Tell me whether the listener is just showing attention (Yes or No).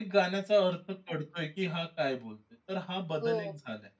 No